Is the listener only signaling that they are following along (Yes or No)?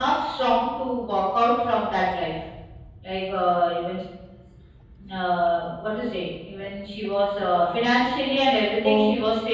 Yes